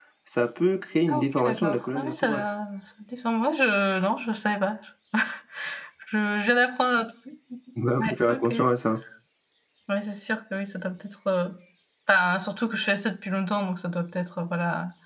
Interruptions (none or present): present